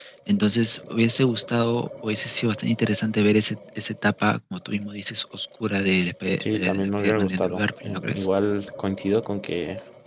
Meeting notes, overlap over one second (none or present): present